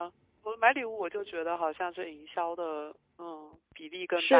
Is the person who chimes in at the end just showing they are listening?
No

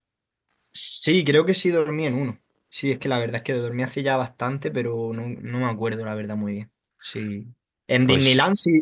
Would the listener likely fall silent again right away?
Yes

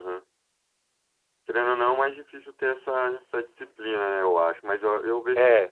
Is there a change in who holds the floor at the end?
No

